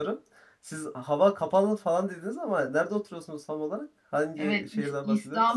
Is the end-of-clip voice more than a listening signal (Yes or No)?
Yes